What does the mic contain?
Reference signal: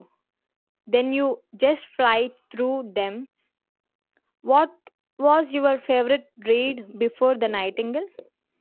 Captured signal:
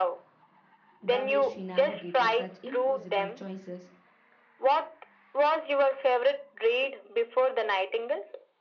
both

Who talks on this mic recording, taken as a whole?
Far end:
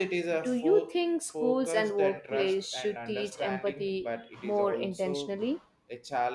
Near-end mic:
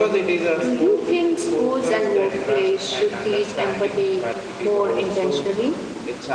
echo only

